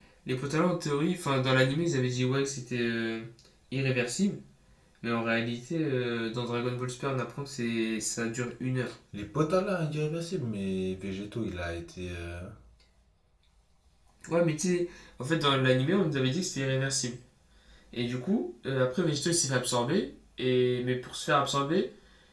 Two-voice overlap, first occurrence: none

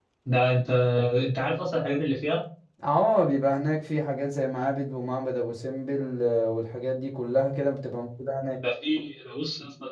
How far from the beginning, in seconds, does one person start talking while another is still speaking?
none

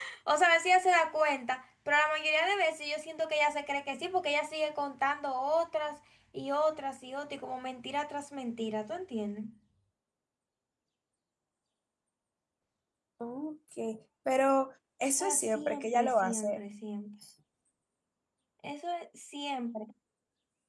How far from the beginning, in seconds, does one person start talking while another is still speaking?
15 s

